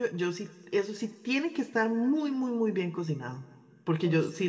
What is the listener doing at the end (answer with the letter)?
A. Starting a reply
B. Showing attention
B